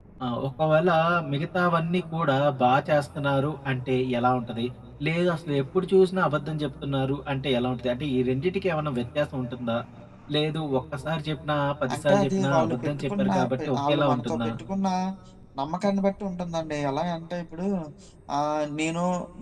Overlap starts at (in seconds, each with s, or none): 11.9 s